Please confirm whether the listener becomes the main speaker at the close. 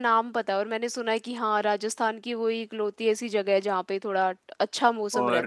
Yes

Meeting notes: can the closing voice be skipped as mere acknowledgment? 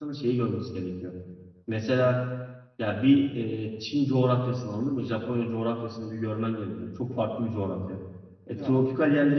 Yes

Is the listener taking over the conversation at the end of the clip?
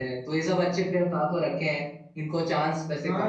Yes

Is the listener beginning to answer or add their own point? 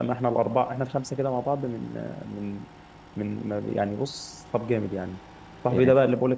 No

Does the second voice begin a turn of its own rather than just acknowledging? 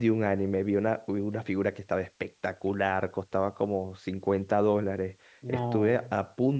No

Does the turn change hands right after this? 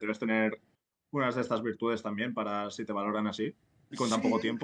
Yes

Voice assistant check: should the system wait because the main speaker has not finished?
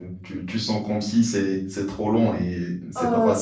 Yes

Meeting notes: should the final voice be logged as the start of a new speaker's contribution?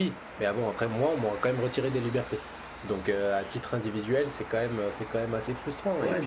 Yes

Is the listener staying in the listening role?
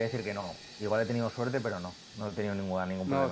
No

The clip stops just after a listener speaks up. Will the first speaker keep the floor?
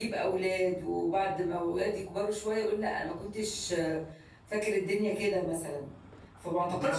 Yes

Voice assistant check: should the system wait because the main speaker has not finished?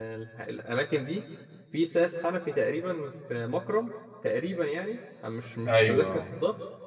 Yes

